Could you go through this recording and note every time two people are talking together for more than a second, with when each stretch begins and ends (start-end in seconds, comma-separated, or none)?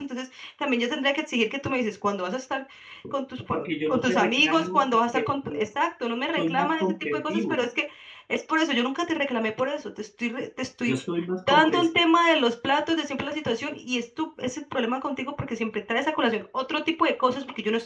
3.5-5.6, 6.4-7.6